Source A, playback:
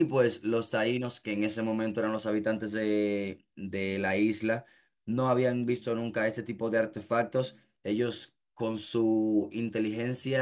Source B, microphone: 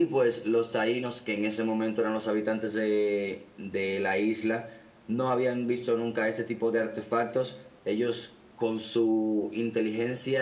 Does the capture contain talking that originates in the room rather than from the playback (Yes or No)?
No